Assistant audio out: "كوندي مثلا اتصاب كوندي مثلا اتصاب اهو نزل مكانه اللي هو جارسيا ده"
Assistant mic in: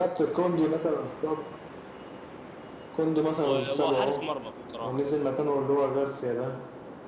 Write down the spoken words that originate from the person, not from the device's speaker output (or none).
و- وحارس مرمى بصراحه برضه